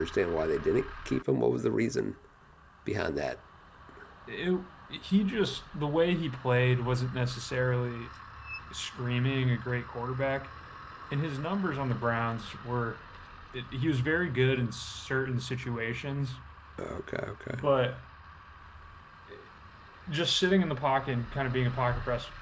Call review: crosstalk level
none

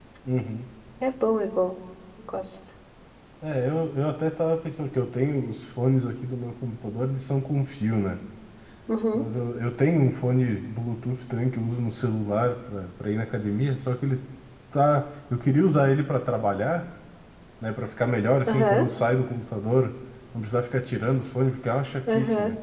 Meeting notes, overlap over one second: none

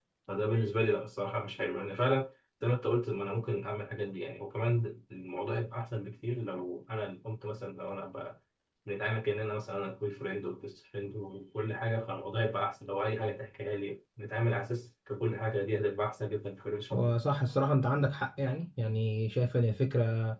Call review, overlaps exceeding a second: none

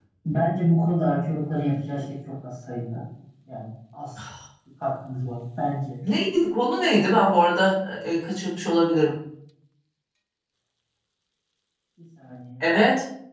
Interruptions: none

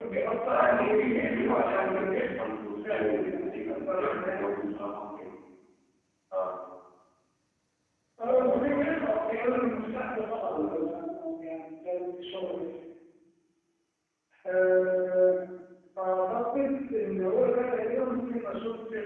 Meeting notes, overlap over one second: present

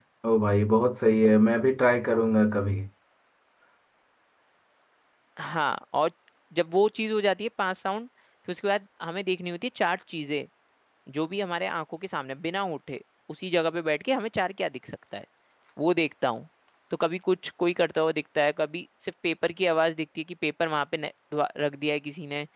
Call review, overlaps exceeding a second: none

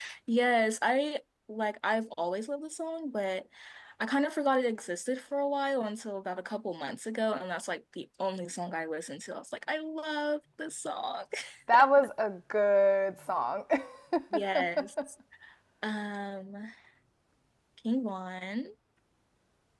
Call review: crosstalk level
none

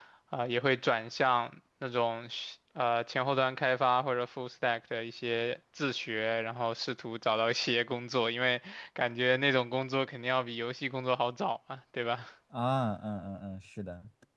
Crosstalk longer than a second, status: none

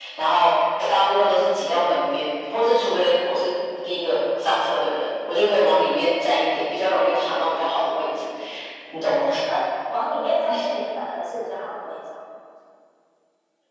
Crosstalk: none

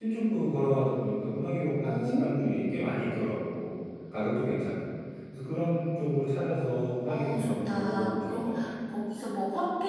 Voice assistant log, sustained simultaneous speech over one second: present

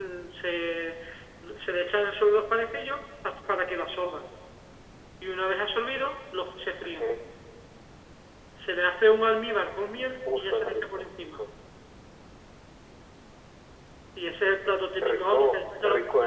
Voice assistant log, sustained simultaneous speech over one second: present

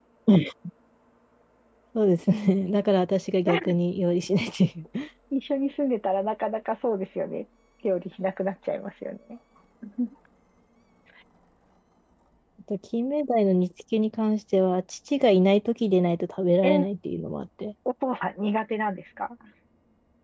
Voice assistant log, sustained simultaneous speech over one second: none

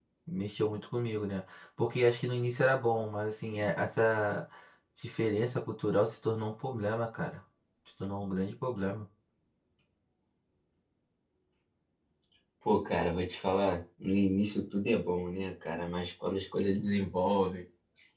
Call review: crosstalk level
none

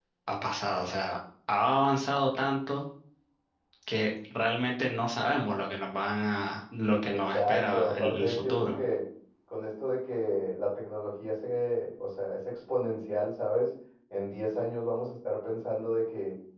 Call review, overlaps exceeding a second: present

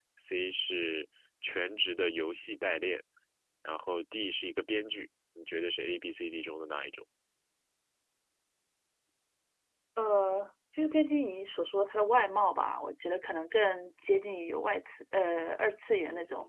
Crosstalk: none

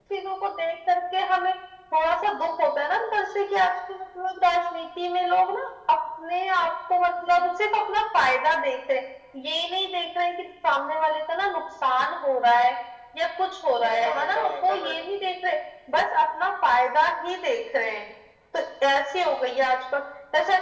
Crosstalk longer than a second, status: present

